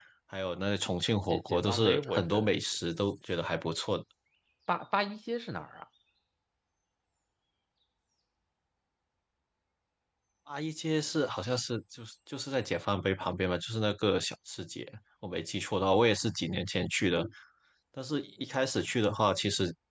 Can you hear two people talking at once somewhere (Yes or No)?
Yes